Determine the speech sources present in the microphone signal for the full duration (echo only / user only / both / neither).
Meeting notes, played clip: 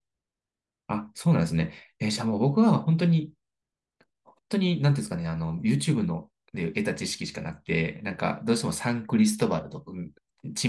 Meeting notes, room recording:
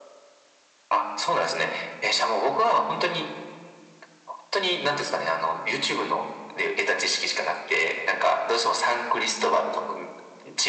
echo only